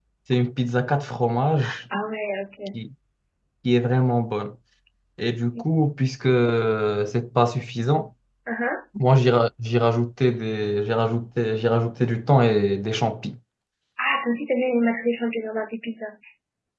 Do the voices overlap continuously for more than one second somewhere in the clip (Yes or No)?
No